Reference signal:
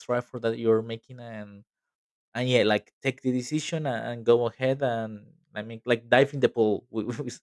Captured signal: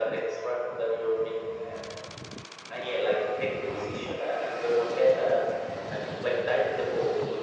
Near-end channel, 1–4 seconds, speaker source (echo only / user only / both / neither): echo only